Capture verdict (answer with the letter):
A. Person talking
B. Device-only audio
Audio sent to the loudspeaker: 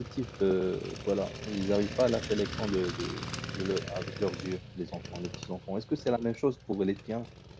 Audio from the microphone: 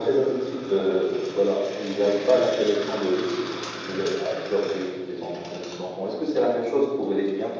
B